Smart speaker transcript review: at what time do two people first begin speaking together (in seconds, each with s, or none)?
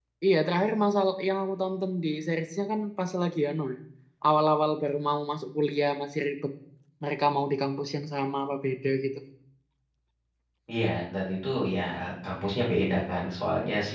none